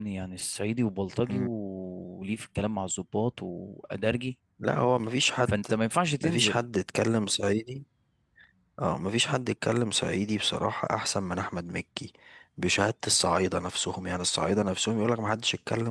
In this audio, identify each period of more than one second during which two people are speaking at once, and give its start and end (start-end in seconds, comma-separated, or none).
none